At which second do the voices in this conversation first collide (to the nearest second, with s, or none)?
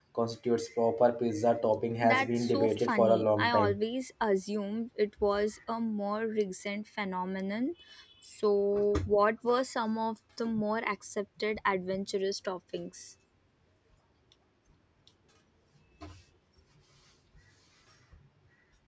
2 s